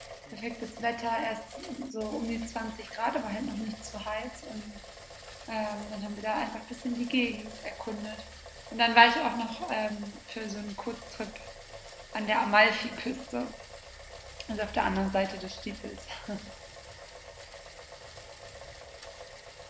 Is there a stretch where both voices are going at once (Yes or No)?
No